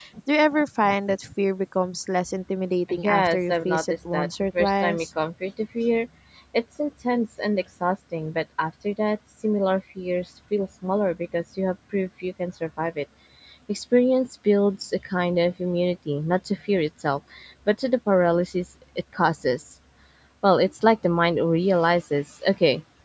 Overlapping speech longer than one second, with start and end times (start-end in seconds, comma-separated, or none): 3.0-5.0